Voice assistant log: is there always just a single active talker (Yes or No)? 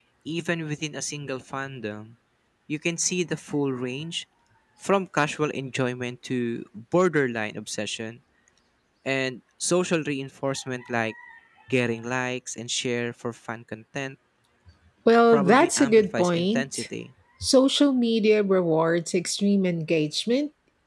No